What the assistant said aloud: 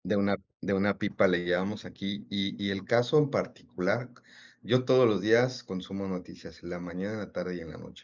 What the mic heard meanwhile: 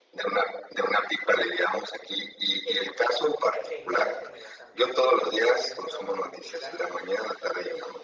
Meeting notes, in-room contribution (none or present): present